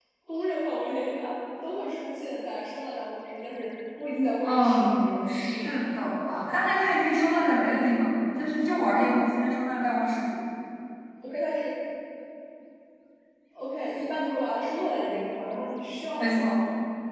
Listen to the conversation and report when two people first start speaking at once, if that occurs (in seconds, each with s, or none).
4.5 s